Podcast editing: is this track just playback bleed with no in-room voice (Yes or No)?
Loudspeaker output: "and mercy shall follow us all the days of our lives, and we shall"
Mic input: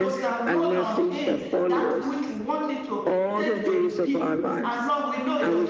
No